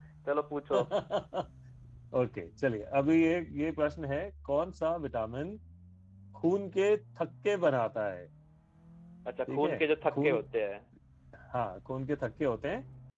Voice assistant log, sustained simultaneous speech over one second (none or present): none